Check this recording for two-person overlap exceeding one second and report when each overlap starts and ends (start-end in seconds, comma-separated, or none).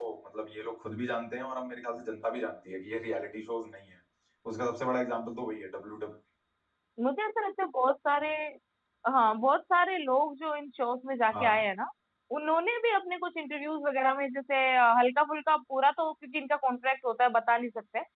none